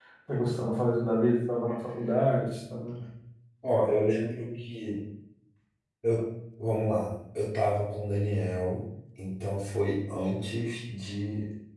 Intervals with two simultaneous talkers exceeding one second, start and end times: none

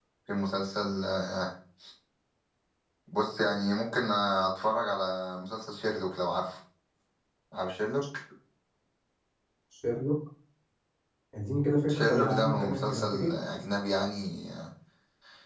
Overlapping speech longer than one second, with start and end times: 11.9-13.3

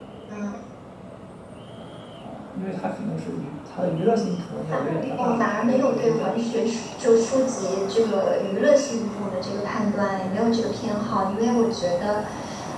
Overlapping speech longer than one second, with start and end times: 4.5-6.4

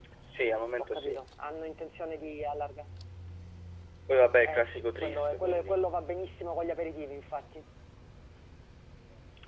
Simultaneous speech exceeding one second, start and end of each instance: 4.4-5.8

